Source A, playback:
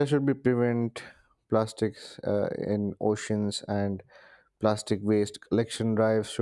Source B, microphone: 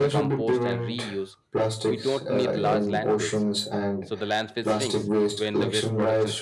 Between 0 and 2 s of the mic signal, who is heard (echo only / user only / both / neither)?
both